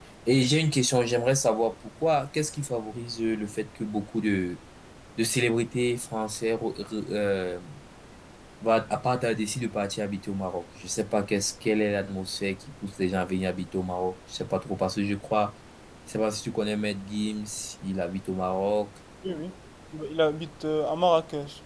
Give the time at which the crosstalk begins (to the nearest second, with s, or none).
none